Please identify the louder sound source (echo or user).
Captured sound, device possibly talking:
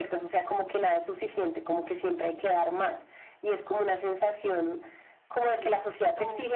echo